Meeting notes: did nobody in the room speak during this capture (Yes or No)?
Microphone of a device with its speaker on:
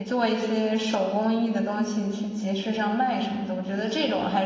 No